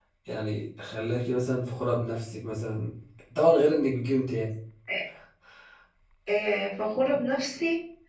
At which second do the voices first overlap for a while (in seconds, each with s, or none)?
none